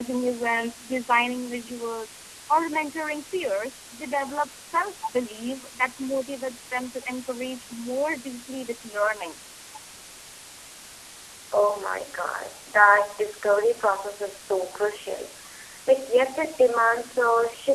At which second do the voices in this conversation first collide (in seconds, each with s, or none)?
none